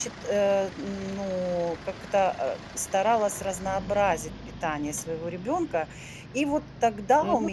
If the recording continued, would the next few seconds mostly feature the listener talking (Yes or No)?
Yes